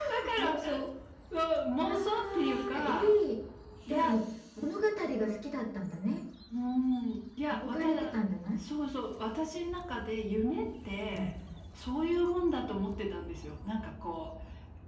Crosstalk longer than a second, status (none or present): present